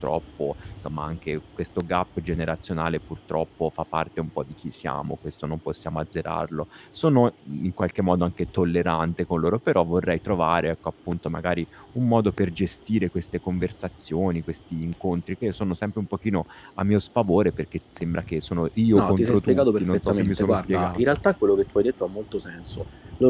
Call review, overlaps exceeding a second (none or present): present